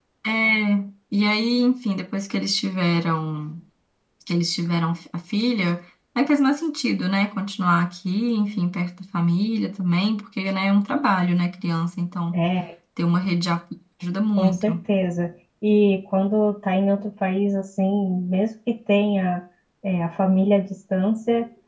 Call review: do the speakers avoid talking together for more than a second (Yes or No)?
Yes